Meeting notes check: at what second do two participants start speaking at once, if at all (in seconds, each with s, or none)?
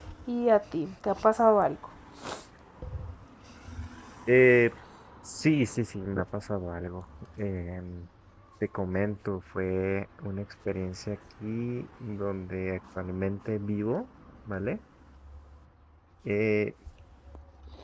none